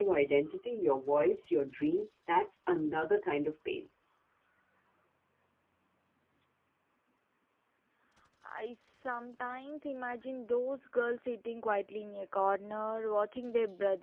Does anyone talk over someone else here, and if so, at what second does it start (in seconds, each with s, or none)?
none